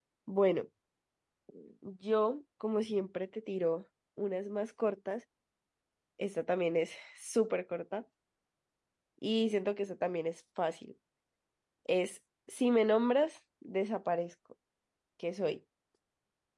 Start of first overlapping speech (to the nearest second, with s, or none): none